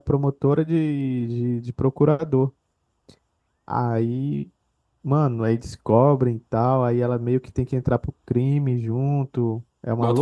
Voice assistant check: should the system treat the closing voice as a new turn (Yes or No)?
Yes